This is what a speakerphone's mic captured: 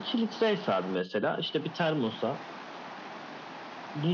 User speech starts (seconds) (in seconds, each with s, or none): none